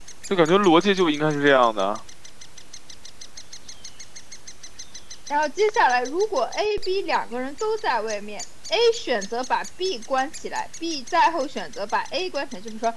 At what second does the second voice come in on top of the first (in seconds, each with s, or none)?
none